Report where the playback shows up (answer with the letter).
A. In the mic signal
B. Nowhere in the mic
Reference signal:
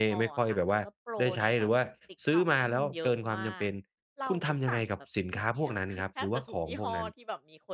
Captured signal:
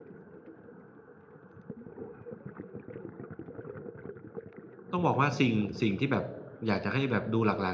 B